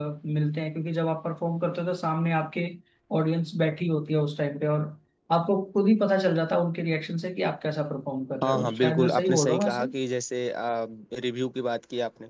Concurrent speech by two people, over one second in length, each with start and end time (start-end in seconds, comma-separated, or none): 8.4-9.8